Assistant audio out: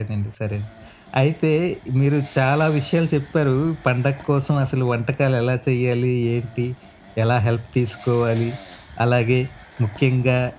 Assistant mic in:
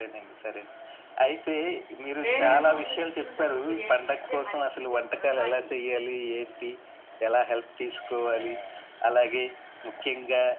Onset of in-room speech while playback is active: 2.2 s

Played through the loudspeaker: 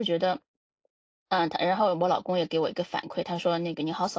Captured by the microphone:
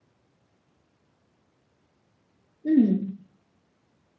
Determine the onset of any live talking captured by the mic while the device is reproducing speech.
2.6 s

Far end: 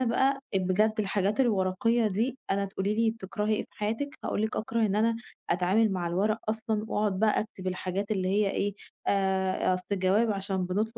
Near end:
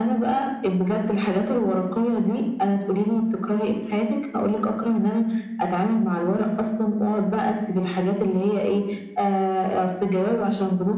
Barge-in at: none

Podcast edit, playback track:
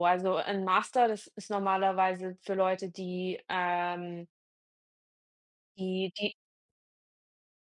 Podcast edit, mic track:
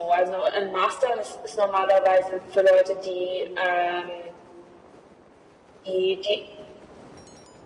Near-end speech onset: none

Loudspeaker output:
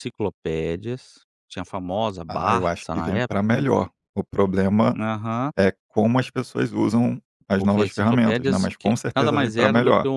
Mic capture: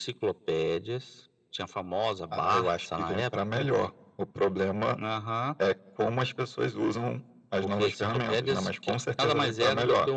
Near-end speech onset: none

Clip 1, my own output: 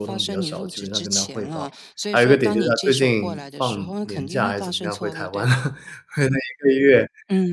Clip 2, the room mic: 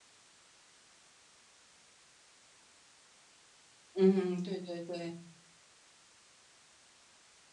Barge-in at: 3.9 s

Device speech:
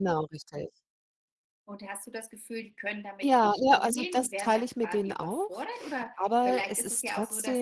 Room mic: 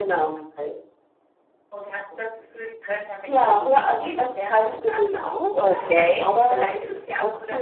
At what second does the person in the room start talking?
5.5 s

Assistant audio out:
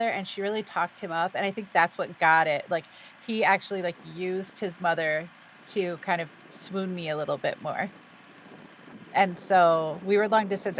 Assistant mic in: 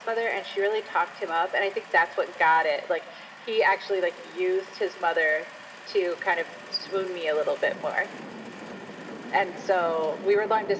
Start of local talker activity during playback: none

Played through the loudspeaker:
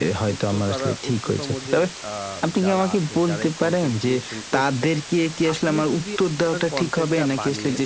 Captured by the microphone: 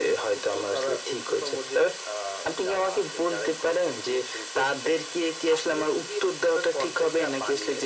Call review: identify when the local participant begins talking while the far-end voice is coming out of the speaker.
none

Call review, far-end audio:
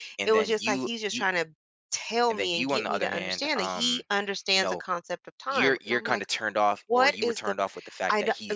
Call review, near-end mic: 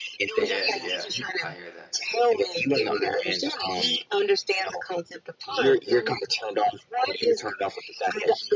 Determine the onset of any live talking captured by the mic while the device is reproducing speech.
0.4 s

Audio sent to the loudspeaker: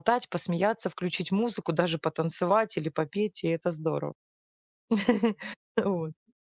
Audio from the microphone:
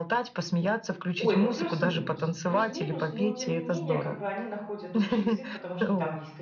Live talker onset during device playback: 1.2 s

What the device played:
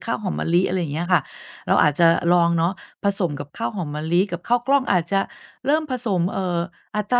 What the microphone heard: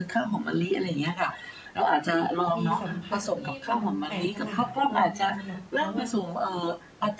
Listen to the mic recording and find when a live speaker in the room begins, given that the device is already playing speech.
2.6 s

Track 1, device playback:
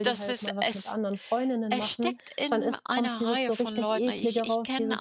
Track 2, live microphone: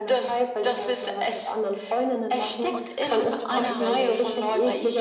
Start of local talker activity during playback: 2.7 s

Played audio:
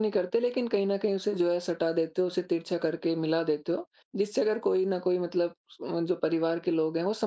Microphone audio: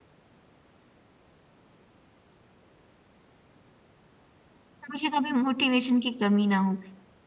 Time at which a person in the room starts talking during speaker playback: 4.9 s

